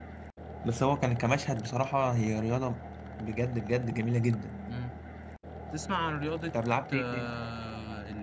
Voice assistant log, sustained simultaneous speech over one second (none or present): none